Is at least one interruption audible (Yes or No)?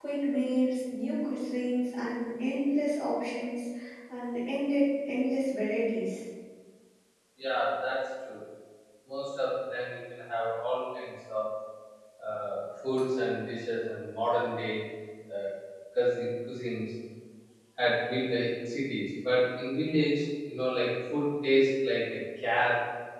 No